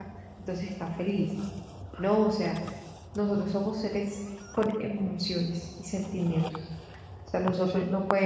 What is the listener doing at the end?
listening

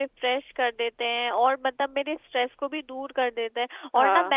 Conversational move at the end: listening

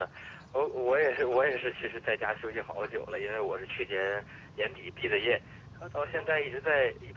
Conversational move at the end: listening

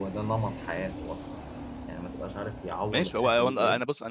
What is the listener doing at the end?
taking over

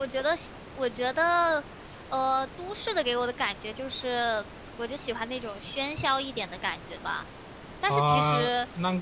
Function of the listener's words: taking over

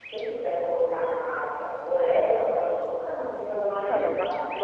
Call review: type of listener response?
taking over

